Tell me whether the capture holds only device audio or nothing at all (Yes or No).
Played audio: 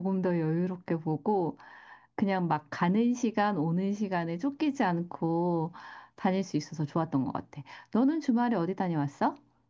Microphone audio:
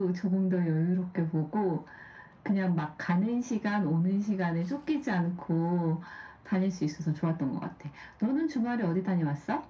Yes